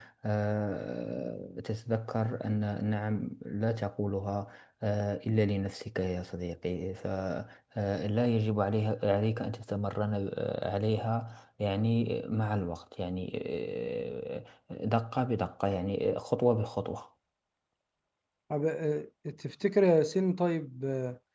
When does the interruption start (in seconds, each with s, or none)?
none